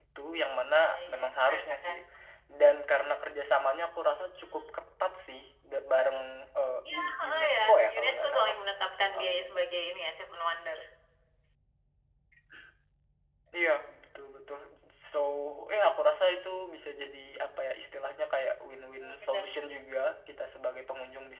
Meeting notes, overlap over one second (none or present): present